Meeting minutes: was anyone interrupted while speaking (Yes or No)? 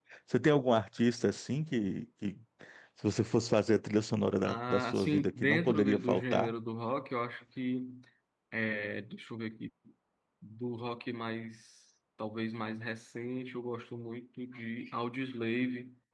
Yes